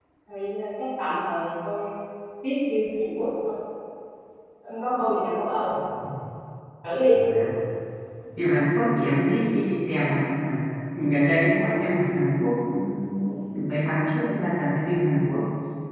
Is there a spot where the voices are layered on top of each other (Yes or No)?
No